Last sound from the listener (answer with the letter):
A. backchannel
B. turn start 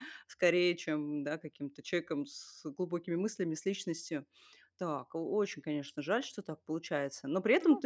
A